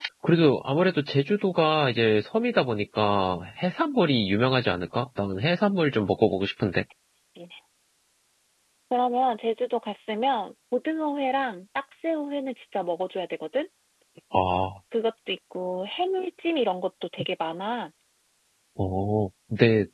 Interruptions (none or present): none